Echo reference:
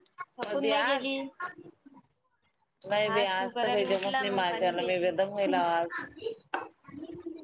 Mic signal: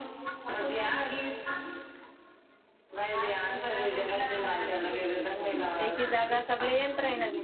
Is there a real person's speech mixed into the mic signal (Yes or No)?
Yes